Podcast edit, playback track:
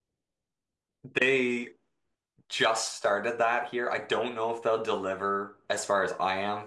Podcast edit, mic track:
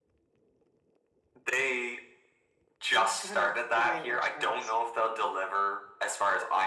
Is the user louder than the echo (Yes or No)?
No